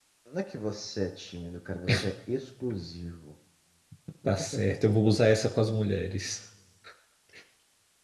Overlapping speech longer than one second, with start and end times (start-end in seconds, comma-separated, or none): none